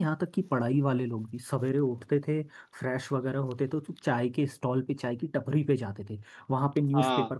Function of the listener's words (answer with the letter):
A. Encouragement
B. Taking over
A